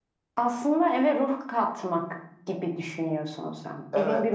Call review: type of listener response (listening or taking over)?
taking over